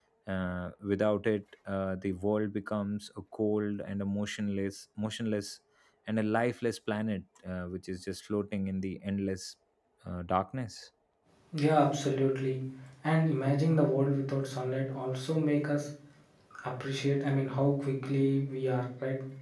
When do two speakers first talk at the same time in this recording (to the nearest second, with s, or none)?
none